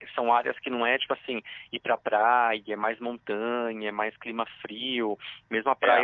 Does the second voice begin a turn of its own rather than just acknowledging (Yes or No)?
No